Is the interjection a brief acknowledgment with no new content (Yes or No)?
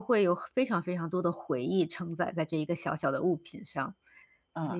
No